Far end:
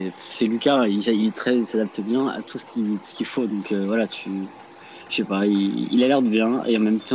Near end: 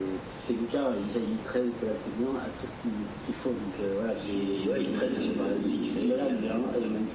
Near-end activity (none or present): present